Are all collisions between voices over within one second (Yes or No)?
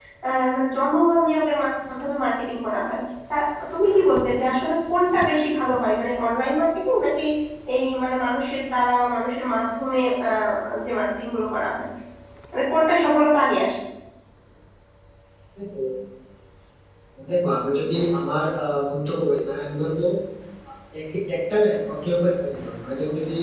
Yes